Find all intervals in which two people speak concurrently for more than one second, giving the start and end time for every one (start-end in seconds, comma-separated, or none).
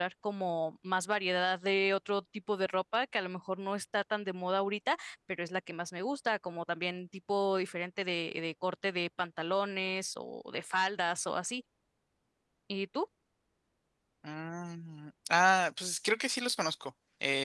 none